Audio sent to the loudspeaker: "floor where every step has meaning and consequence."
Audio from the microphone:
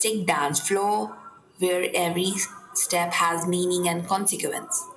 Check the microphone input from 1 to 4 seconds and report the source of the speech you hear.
echo only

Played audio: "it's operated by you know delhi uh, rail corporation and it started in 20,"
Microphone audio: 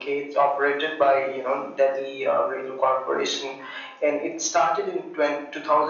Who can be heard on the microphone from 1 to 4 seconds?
echo only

